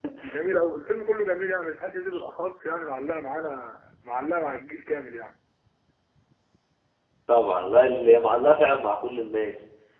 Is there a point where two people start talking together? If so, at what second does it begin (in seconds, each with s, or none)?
none